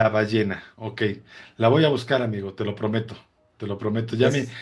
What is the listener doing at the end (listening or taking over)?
listening